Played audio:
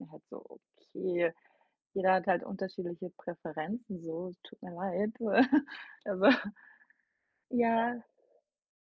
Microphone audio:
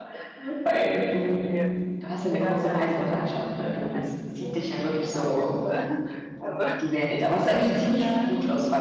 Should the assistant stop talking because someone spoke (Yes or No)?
Yes